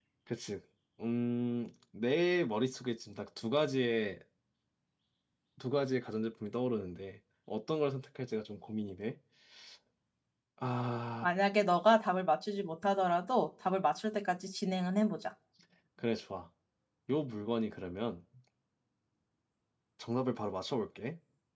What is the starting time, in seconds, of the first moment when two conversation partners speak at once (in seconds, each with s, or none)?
none